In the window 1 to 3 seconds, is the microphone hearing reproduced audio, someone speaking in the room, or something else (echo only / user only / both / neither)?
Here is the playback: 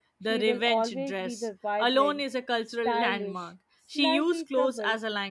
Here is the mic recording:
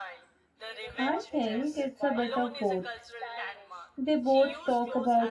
both